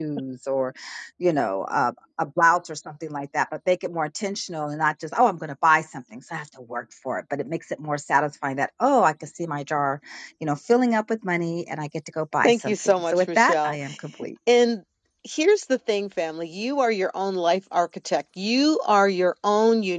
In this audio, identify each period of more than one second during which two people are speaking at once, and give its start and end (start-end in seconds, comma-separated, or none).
12.4-13.8